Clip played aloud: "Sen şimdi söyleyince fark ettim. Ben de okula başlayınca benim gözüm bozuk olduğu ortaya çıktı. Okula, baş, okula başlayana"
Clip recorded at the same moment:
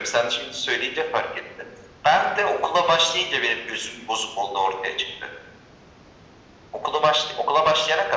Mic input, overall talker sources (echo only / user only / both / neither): echo only